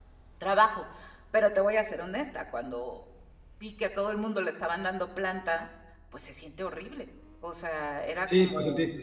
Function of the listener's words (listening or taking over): taking over